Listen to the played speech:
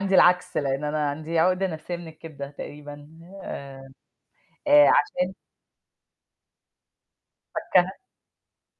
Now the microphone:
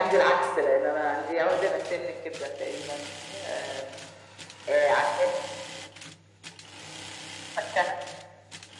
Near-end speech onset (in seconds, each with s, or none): none